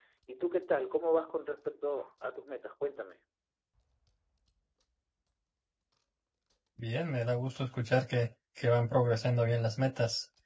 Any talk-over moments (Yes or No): No